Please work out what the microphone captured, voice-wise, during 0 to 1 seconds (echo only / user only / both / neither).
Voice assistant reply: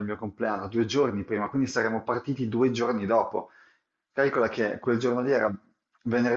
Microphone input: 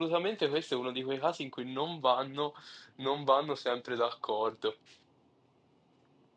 user only